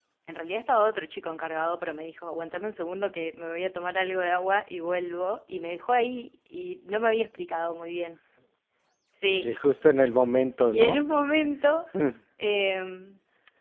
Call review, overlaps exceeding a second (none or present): none